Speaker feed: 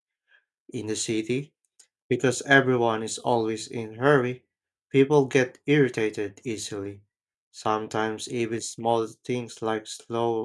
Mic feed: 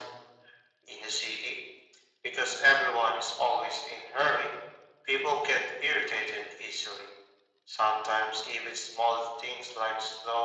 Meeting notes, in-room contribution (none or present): none